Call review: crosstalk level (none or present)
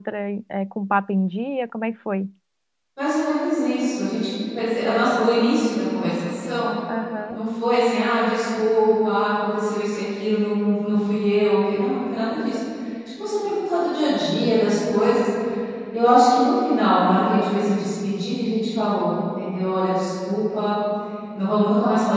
none